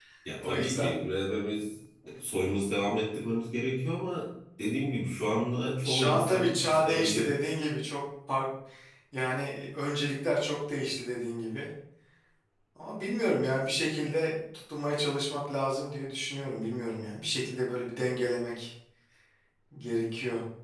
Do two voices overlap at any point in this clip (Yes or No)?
Yes